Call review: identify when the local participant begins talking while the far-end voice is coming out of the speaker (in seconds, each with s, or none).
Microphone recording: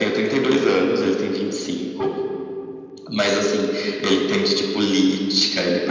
none